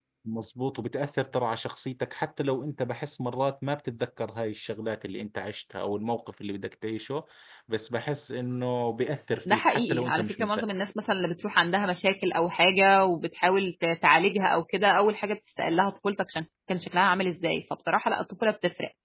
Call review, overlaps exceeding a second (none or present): present